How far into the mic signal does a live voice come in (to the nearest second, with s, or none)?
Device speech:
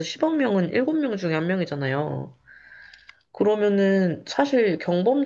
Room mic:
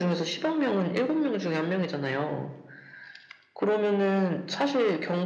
none